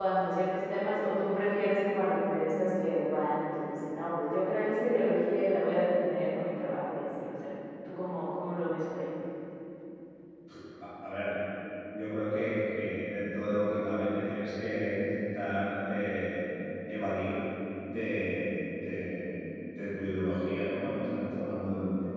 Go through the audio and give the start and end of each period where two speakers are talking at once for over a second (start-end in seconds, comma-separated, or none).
none